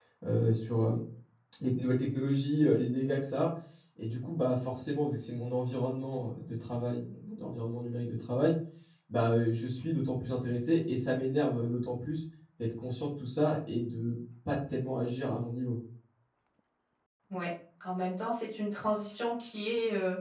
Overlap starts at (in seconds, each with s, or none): none